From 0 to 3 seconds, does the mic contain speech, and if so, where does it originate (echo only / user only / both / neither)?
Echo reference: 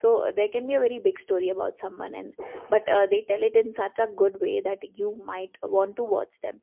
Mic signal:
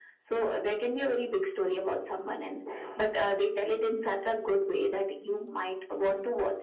echo only